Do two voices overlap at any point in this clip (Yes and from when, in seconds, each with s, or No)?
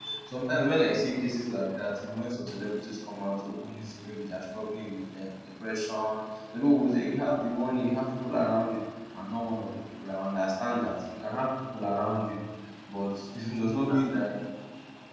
No